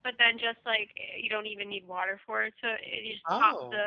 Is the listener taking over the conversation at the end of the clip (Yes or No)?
No